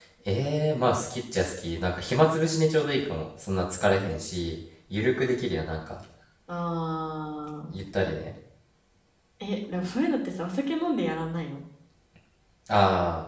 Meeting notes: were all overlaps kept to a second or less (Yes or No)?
Yes